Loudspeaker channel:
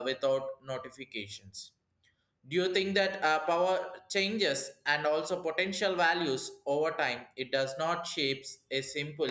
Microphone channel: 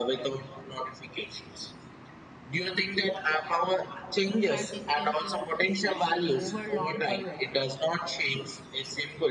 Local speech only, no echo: fatigue is uh, especially over long careers.

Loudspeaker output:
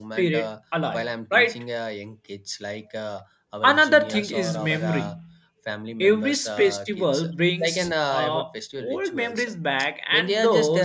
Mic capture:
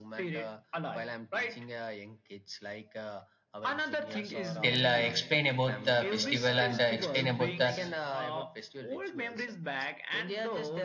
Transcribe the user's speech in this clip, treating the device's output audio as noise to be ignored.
tell, uh, explain about the festival and uh, explain about the

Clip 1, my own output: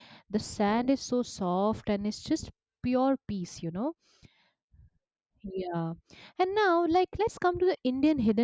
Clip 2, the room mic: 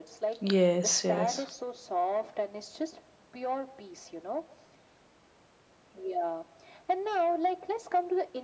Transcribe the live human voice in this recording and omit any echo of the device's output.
Yes. Yes.

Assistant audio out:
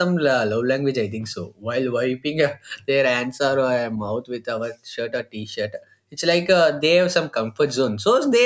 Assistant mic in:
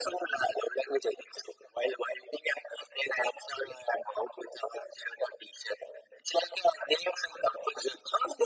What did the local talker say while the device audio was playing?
none

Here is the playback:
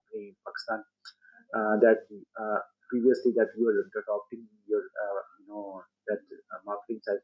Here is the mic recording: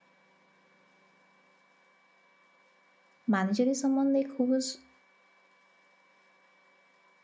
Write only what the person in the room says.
Manager is someone like who was

